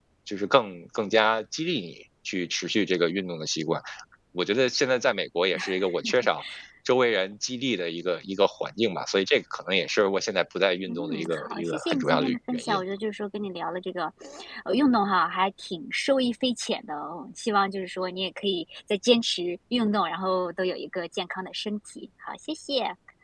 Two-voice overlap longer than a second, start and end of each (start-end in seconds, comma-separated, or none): 10.9-12.8